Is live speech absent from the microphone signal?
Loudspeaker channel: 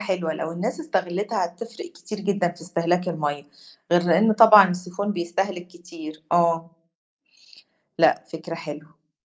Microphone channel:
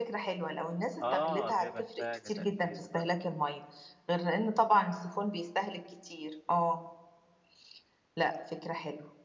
No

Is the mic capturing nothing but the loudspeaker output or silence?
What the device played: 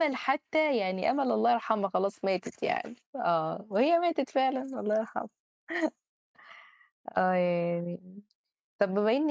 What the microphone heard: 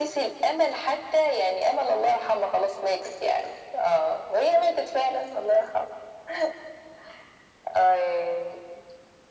Yes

